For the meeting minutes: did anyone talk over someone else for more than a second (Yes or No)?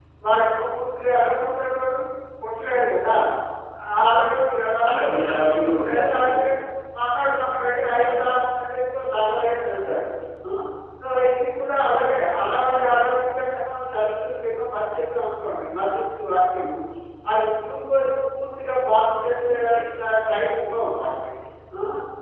Yes